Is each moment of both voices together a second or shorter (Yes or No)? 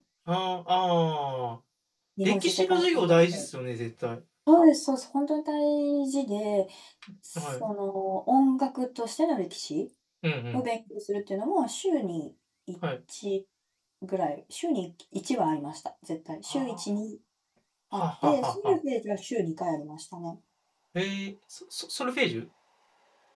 No